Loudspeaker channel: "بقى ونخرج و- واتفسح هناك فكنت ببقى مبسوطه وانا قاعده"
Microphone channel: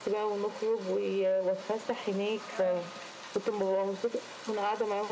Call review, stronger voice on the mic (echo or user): echo